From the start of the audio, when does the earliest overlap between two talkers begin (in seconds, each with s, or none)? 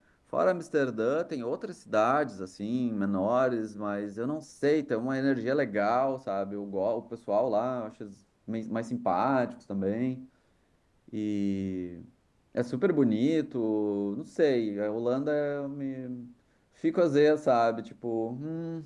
none